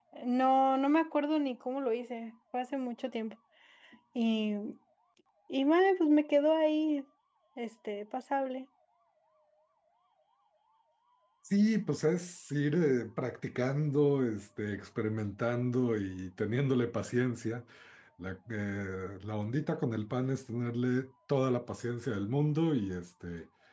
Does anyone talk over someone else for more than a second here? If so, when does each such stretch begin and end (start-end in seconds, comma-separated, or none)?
none